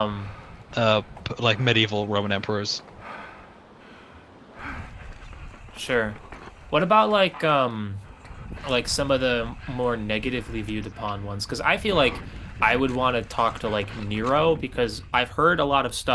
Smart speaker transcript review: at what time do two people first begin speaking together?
none

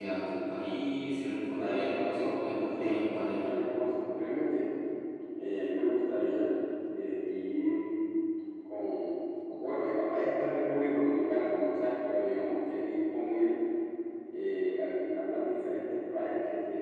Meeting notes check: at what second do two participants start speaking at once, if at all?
1.6 s

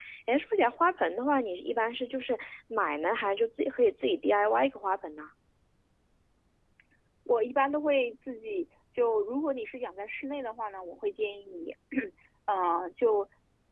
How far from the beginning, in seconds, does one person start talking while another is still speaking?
none

